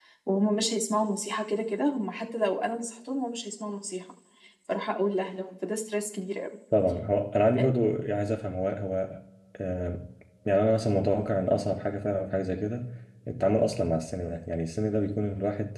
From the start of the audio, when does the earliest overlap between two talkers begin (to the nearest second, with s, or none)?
none